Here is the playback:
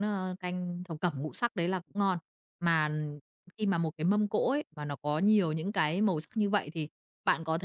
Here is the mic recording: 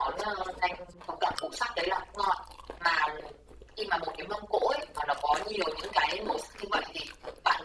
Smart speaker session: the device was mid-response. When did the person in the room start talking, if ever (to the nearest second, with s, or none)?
none